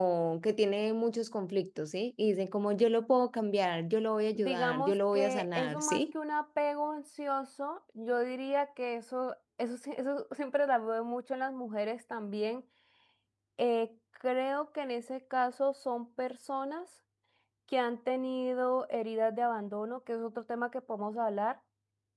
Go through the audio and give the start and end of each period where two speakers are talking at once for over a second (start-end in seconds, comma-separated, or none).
4.4-6.1